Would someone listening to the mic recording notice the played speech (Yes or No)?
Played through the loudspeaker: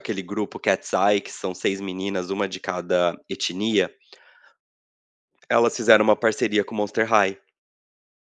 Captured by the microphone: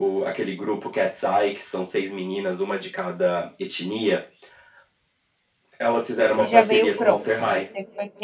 Yes